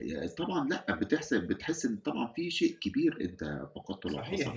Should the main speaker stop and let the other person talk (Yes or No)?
Yes